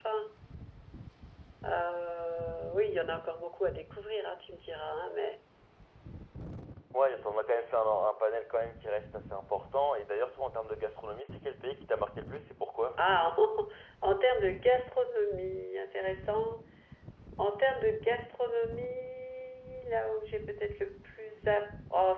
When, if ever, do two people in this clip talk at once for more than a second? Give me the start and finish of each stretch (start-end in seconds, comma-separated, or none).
none